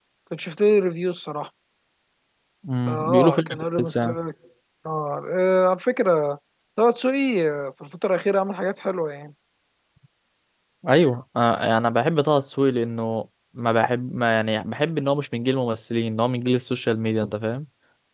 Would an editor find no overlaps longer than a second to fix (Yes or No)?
No